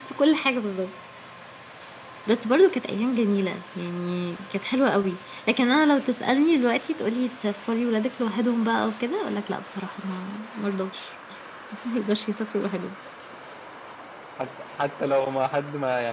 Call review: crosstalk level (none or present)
none